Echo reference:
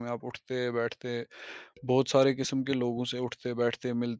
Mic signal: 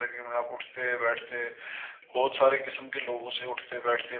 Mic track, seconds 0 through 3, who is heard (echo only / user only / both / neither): echo only